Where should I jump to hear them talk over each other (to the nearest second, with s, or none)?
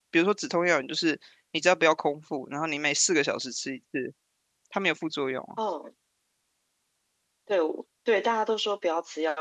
none